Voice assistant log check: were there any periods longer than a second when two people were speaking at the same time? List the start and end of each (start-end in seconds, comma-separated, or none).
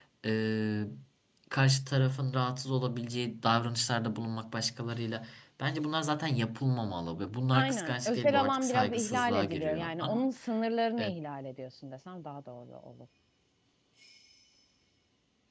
7.5-10.3